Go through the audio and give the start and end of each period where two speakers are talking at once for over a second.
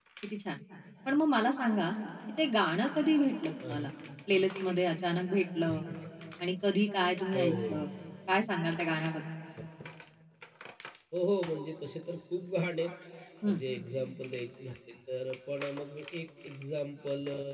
none

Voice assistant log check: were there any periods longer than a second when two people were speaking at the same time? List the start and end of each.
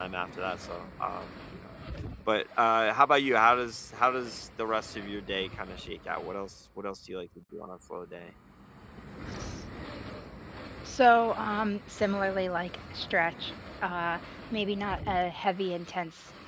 none

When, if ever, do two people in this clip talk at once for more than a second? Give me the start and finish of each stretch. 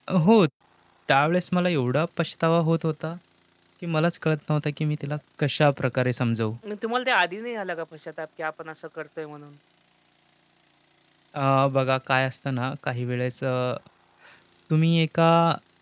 none

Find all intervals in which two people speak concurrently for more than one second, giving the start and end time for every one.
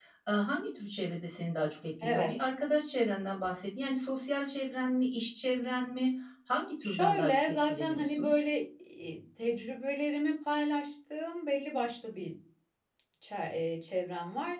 6.8-8.3

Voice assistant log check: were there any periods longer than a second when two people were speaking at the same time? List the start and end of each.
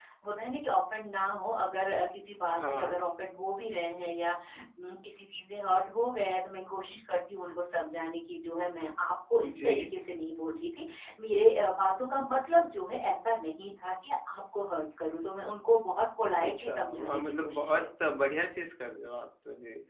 16.4-18.2

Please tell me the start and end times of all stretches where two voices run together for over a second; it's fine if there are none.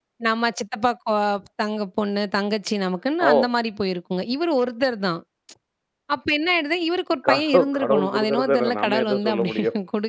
7.3-9.5

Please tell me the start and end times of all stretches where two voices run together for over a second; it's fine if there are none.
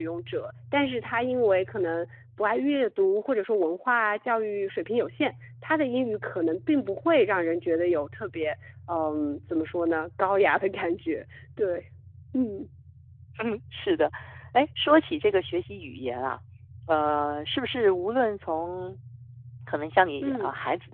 none

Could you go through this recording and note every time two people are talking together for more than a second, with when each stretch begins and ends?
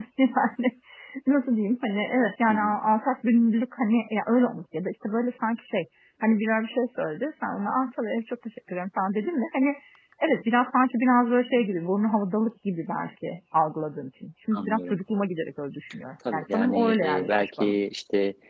16.3-17.7

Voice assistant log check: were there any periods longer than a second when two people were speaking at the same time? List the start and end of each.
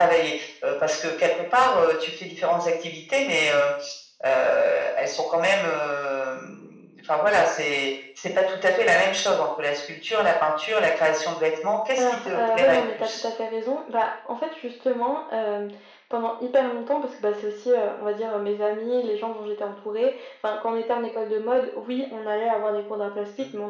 12.0-13.2

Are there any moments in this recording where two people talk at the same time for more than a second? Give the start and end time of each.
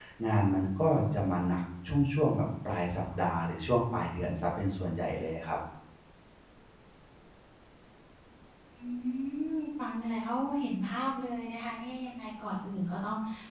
none

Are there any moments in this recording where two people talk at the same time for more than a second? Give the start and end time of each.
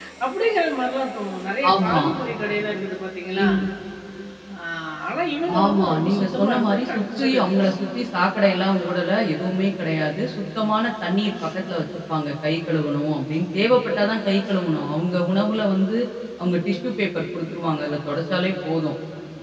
5.6-7.5

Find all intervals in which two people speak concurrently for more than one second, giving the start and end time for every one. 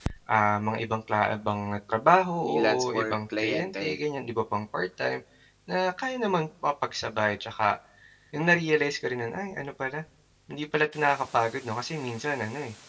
2.4-3.9

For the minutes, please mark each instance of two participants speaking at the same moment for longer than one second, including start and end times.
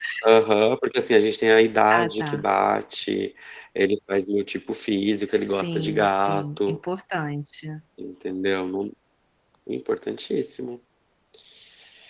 5.1-6.8

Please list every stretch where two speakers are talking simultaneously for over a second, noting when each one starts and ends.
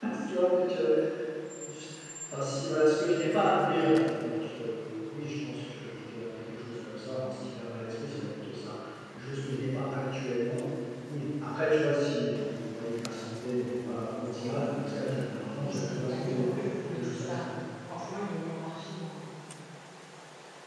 15.6-17.4

